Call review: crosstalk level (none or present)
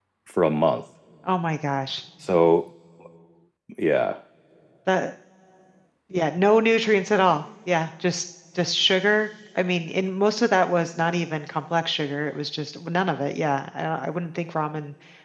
none